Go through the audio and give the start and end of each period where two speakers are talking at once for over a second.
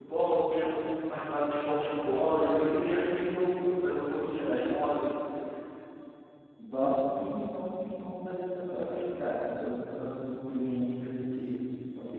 none

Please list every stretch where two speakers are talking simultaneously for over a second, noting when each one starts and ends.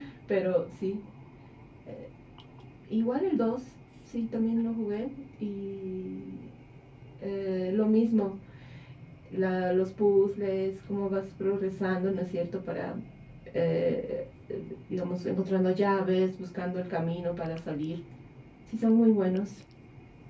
none

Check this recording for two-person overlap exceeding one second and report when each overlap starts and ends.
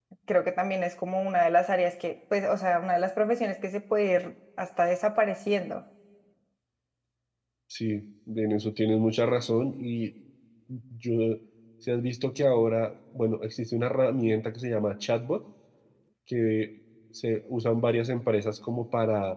none

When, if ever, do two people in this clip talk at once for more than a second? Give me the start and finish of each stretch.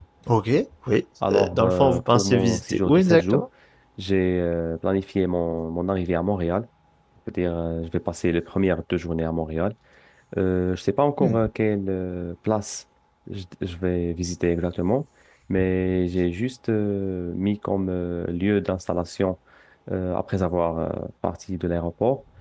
1.3-3.4

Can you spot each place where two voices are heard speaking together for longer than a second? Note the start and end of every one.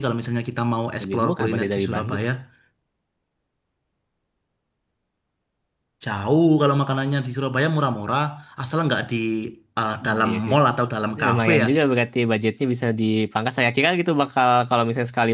1.0-2.2

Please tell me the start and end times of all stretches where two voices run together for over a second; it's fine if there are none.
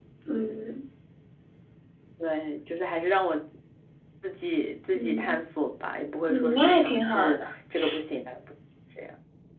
6.3-7.5

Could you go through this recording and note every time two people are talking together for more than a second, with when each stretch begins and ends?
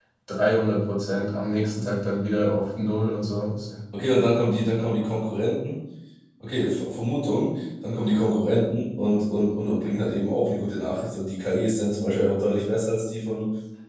none

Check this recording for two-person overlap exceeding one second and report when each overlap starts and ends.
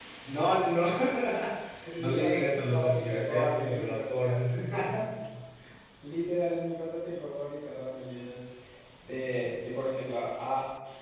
2.0-4.1

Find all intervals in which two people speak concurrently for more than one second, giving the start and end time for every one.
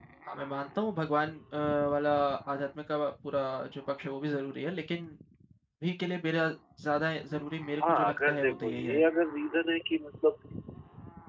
7.8-9.0

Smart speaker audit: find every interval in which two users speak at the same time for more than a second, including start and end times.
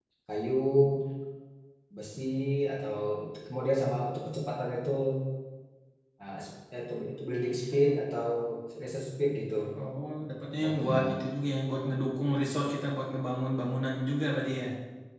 none

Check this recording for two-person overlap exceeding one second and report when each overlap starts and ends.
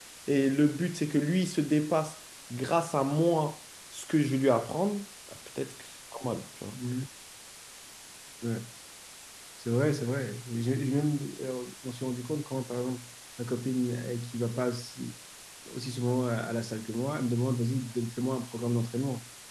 none

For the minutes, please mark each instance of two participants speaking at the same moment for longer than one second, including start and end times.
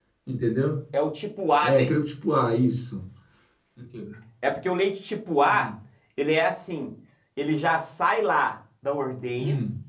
none

